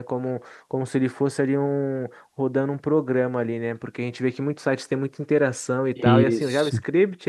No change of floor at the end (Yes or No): Yes